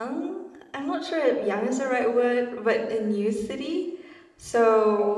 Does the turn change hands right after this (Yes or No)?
No